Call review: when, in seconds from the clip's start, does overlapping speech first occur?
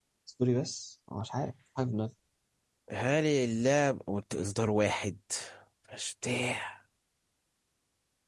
none

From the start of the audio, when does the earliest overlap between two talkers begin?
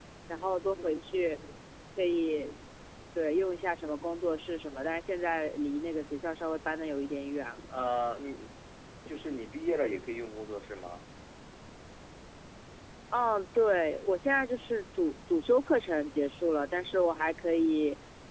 none

